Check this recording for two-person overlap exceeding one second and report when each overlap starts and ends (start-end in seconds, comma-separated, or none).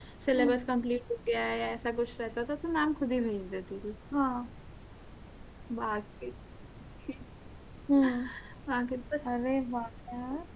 none